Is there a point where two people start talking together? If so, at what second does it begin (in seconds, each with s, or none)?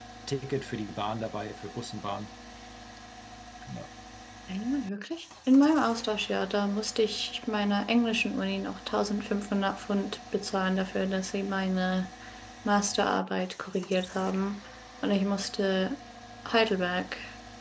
none